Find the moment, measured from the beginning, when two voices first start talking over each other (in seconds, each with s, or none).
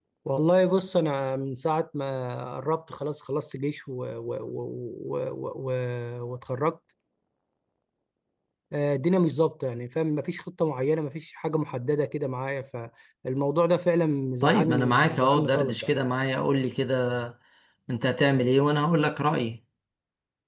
14.4 s